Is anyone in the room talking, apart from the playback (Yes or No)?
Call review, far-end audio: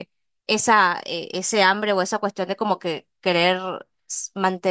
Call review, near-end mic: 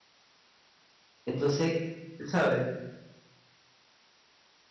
Yes